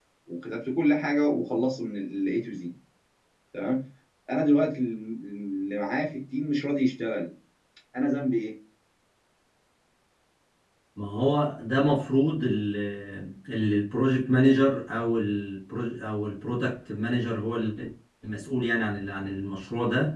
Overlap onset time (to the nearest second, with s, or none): none